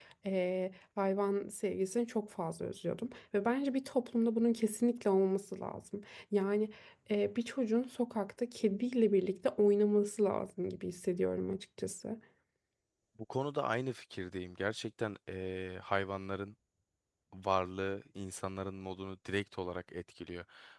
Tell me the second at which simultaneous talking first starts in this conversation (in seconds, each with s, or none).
none